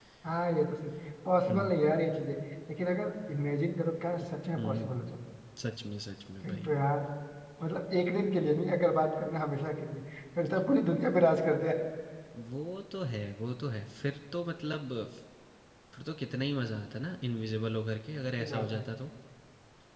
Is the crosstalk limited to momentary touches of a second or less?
Yes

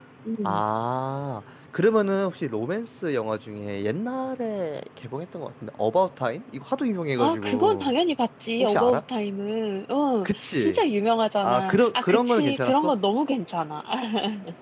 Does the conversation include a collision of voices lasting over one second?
Yes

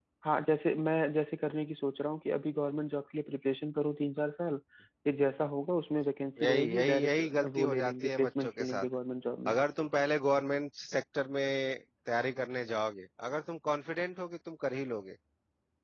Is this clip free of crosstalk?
No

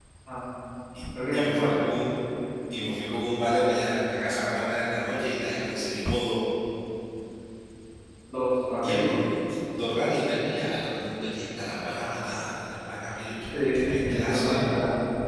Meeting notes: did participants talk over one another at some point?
Yes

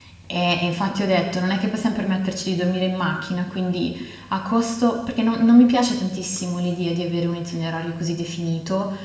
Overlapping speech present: No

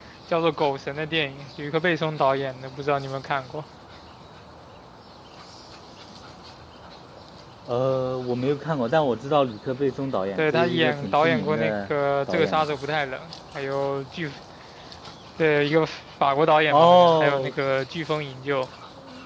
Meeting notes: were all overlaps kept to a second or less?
No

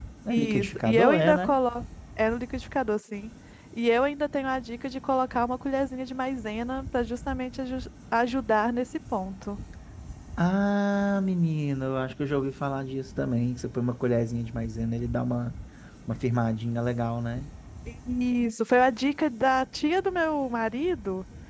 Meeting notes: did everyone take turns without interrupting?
No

